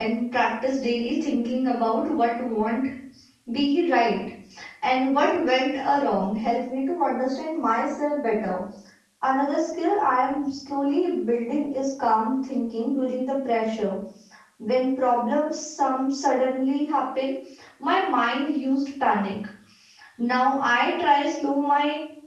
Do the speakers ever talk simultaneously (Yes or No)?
No